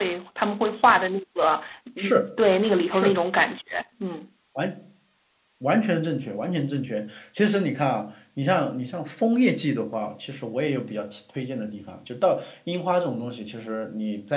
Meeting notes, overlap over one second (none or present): none